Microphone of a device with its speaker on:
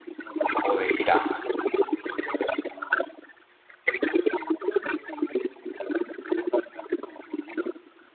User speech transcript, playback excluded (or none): o de jirafa.